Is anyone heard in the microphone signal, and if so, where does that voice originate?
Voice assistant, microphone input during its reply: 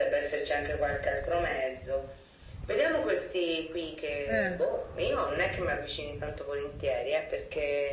both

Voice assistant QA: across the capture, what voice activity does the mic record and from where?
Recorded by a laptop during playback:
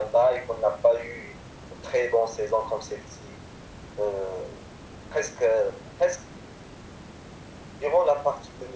echo only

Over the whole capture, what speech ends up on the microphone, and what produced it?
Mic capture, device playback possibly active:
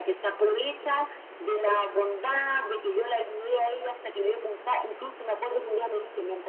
echo only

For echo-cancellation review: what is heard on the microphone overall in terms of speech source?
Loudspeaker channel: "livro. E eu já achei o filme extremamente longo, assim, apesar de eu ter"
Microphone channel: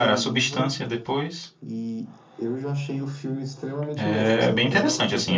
both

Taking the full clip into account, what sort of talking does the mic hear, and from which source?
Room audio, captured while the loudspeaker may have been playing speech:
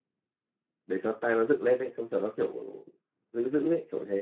user only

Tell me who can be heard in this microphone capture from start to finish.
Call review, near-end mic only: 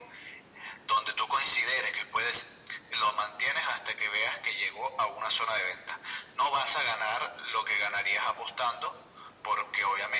echo only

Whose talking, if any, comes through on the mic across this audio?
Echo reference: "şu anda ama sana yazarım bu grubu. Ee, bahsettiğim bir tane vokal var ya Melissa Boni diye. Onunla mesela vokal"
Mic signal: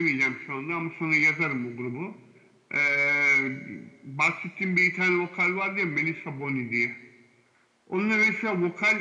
echo only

